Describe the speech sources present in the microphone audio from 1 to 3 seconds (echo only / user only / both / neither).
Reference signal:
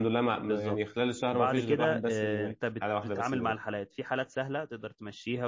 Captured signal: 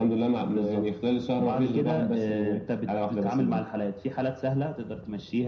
echo only